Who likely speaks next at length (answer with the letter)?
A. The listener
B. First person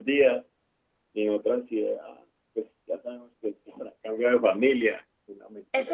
A